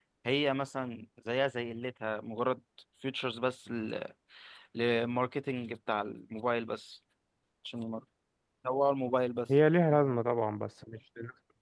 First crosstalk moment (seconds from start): none

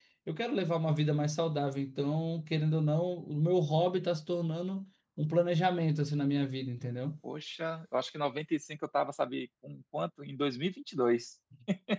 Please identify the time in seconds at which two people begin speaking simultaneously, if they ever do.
none

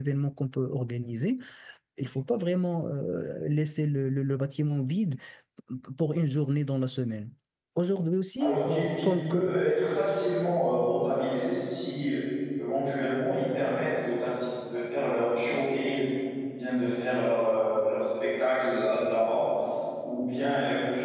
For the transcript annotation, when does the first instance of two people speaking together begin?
8.4 s

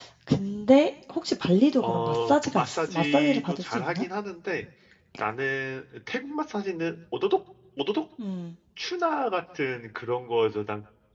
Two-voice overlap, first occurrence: 1.8 s

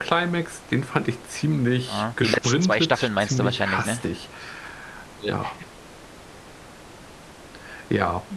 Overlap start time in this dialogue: 1.9 s

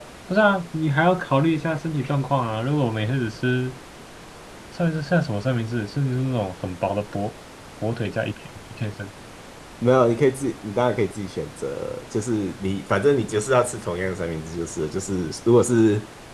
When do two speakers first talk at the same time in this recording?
none

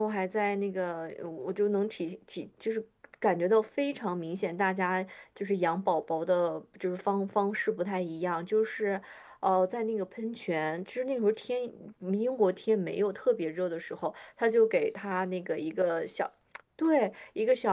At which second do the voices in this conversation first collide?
none

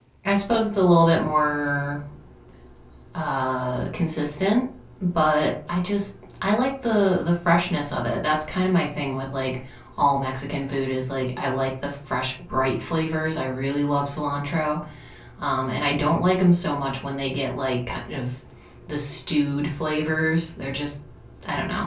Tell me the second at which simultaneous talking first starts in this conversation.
none

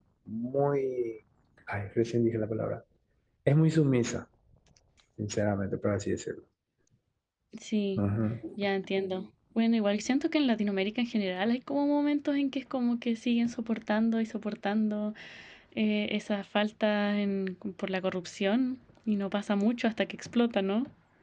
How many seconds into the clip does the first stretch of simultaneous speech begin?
none

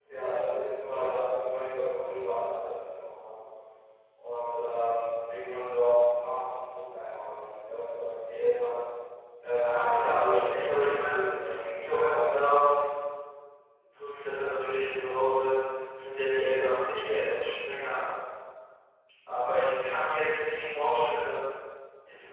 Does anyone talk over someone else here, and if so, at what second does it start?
9.4 s

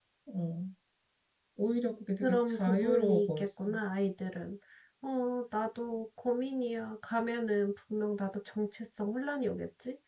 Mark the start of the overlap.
2.2 s

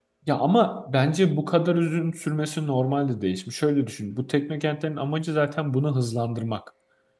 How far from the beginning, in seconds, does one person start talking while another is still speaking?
none

